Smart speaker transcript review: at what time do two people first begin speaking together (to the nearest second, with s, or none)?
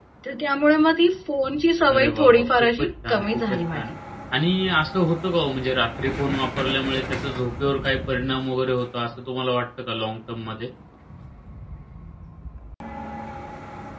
2 s